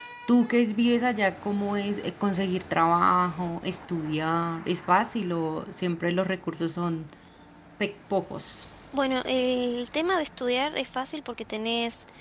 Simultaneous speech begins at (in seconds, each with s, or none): none